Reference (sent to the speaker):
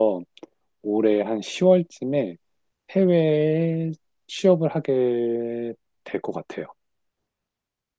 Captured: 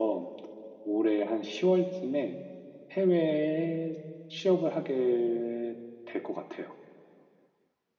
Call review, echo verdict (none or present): present